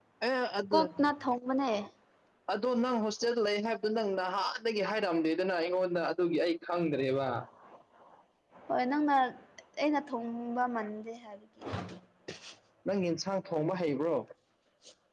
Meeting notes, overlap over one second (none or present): none